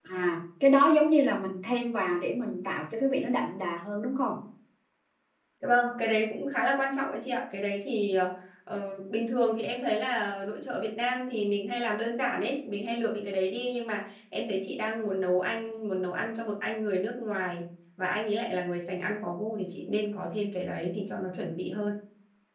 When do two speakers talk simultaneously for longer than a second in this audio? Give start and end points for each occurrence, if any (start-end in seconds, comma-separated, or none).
none